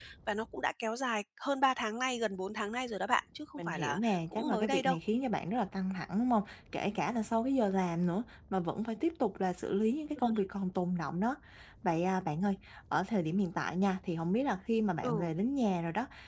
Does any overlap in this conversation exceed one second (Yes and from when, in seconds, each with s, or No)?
Yes, from 3.6 s